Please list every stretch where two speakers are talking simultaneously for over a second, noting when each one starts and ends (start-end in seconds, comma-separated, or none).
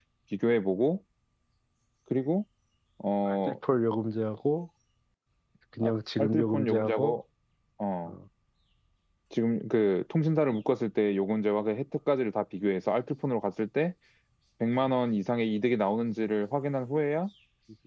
5.8-7.2